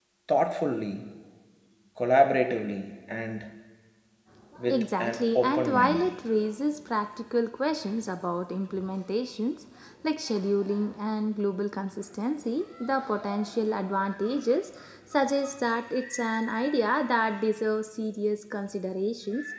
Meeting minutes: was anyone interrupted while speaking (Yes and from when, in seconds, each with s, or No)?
Yes, from 4.7 s